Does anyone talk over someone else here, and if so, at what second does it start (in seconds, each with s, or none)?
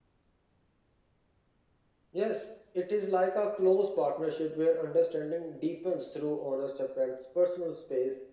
none